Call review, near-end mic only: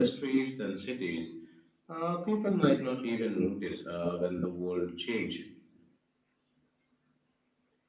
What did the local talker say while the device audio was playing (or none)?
none